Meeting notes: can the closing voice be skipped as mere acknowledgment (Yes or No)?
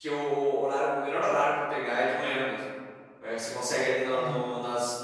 Yes